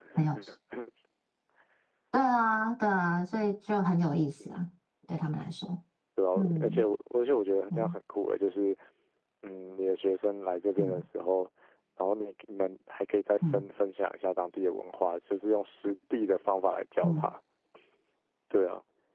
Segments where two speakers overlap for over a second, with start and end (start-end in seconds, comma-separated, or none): none